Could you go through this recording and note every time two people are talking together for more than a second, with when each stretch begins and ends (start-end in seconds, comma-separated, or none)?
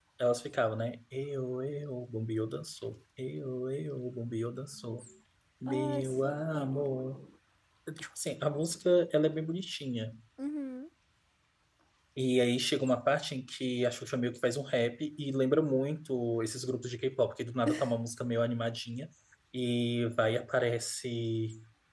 5.7-6.9